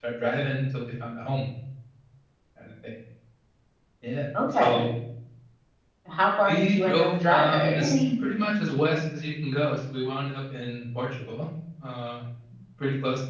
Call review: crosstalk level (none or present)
present